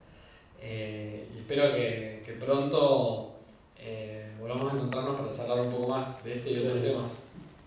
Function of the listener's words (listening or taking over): taking over